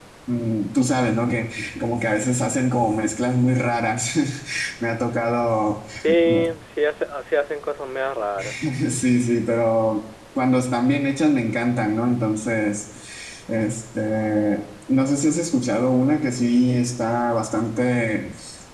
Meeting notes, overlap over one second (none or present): none